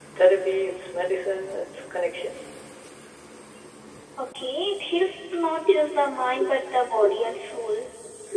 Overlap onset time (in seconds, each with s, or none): none